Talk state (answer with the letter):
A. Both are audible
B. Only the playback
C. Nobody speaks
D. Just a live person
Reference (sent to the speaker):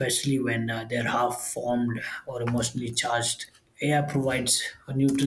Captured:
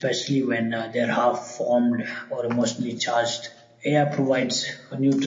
B